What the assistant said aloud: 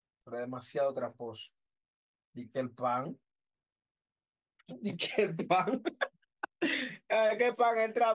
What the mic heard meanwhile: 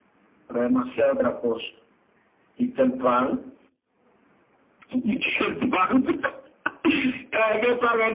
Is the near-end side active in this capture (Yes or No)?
No